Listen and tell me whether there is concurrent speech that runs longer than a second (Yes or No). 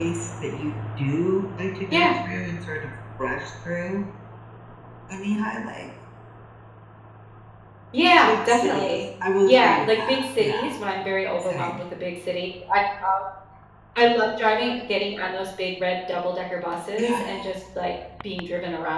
Yes